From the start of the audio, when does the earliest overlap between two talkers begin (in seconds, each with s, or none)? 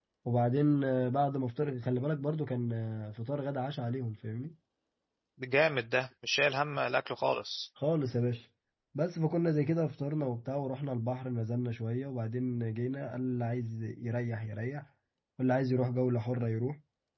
none